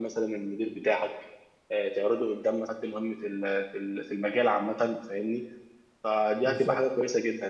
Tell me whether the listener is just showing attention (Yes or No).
Yes